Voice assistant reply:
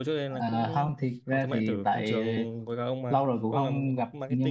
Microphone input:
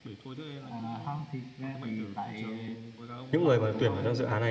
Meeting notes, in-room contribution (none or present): present